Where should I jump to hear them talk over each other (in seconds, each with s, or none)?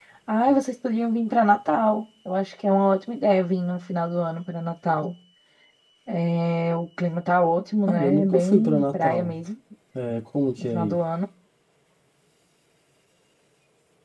7.9 s